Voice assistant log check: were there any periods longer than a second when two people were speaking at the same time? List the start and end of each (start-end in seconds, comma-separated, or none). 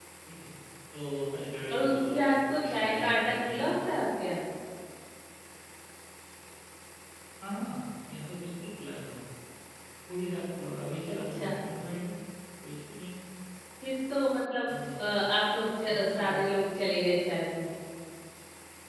1.7-3.7